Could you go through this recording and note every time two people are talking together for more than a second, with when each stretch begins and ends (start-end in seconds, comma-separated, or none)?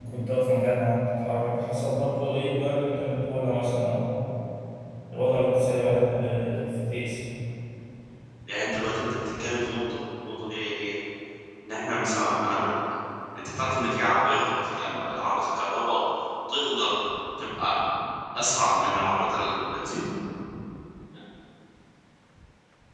none